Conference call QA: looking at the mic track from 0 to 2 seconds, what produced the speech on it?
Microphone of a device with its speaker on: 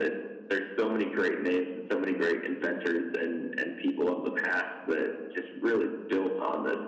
echo only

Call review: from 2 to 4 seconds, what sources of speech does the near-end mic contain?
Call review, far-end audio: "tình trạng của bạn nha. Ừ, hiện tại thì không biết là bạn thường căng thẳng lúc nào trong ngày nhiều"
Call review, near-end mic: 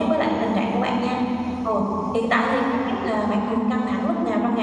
echo only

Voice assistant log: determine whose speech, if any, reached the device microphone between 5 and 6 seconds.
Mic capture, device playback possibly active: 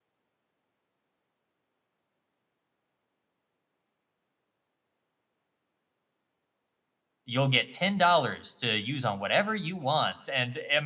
neither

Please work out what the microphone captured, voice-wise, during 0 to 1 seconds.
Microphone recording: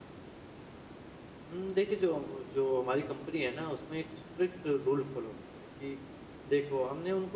neither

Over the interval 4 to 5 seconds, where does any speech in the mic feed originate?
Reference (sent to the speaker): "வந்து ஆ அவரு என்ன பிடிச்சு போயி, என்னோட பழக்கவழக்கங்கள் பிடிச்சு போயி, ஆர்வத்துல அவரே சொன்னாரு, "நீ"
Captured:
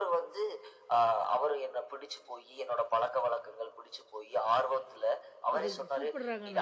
echo only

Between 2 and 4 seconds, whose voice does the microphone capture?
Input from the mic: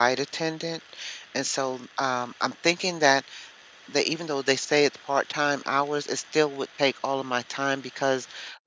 user only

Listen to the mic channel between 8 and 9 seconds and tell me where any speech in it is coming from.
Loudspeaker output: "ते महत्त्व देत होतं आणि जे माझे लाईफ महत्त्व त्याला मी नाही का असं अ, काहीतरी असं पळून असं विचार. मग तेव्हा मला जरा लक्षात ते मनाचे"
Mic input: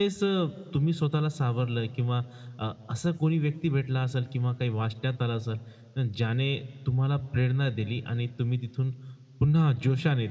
user only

